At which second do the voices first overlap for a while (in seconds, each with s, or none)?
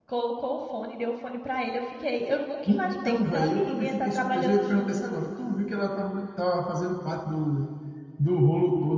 2.6 s